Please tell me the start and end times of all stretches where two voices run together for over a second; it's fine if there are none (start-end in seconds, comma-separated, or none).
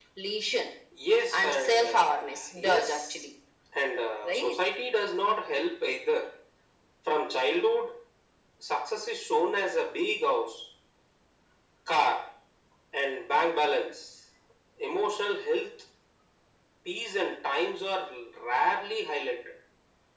1.4-3.1